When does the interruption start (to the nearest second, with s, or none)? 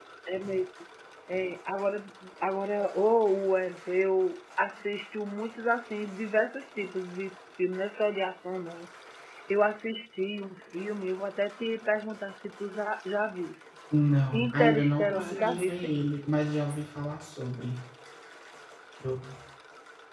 14 s